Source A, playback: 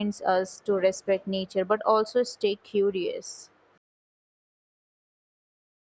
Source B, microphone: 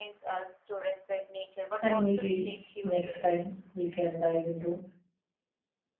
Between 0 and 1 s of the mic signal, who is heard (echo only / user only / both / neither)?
echo only